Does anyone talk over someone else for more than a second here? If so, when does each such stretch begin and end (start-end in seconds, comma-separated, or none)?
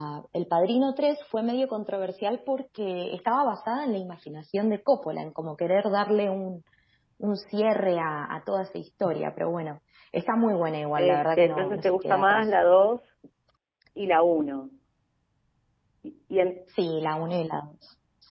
11.0-12.4